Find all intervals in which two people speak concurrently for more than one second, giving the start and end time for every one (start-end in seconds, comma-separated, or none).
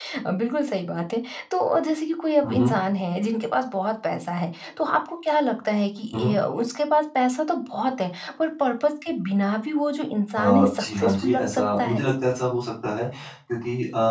10.3-12.0